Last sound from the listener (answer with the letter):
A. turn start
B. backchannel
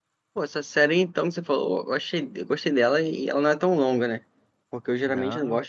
B